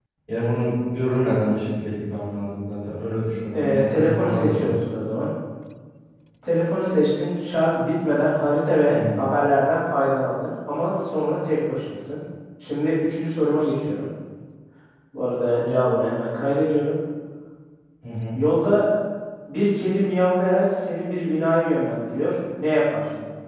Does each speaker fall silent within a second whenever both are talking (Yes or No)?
No